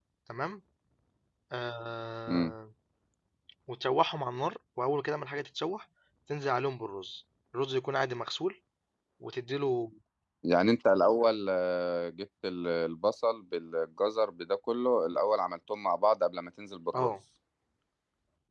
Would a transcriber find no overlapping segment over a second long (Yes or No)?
Yes